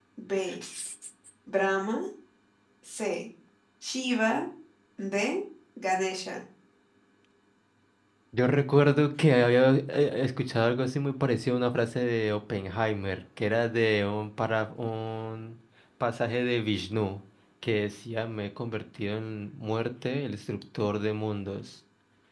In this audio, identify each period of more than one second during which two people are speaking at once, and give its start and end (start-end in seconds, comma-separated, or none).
none